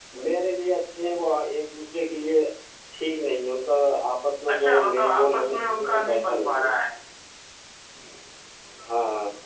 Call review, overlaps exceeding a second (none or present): present